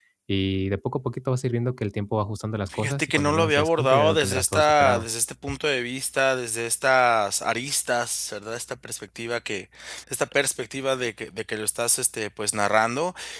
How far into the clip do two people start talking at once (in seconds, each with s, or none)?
2.7 s